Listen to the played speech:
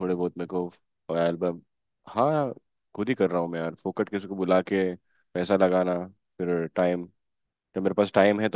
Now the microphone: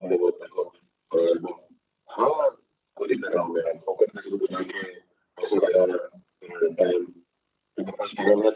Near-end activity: none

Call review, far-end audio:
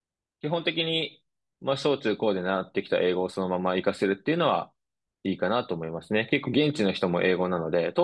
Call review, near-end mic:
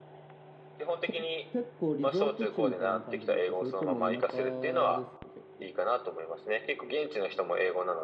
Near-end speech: present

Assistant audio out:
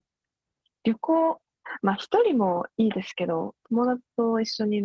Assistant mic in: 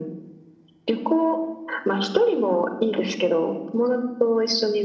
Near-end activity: none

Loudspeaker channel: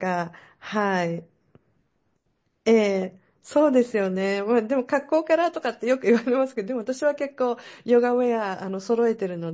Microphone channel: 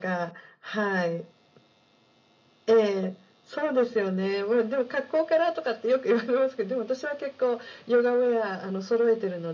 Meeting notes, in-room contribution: none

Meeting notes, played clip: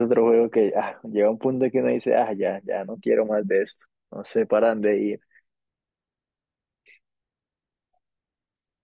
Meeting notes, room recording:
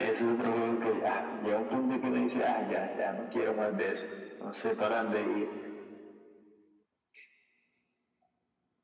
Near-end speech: none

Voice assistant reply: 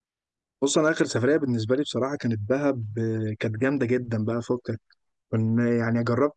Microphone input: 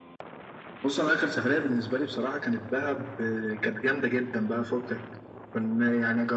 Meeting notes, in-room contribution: none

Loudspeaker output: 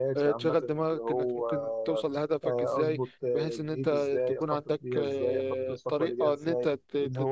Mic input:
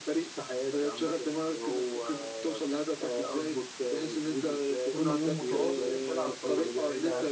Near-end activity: present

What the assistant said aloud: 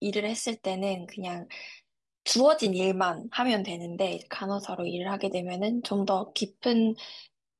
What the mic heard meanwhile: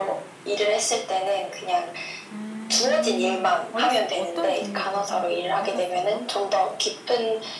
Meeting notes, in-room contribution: present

